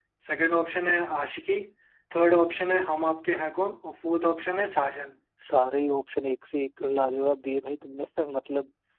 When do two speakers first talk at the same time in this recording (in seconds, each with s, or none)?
none